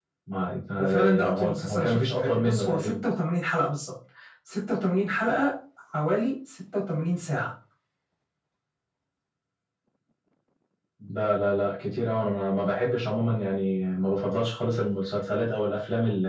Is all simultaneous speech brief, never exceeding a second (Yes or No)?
No